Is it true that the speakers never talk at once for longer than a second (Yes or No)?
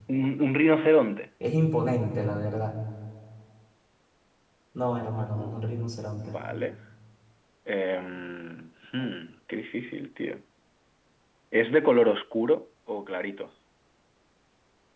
Yes